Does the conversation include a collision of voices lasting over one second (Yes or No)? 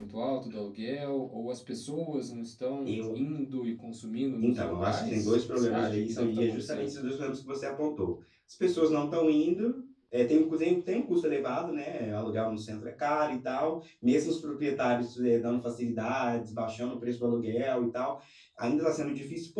Yes